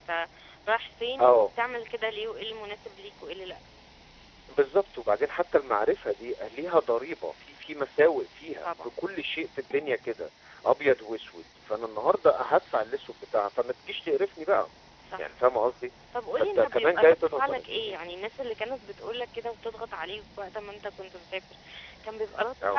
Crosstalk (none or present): present